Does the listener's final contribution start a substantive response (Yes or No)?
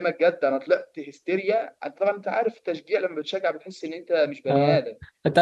Yes